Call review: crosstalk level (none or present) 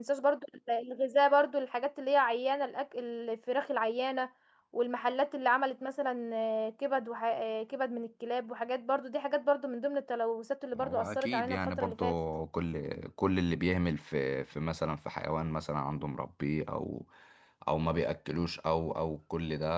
present